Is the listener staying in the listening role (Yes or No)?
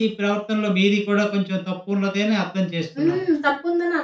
No